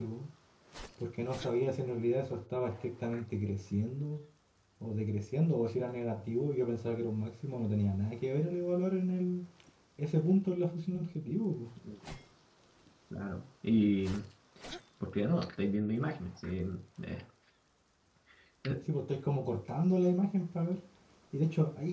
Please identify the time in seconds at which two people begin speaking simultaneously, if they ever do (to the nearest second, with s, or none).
none